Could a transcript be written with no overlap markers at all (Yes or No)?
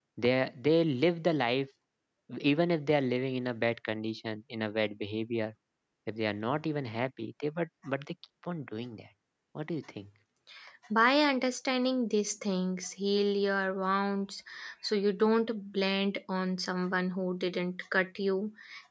Yes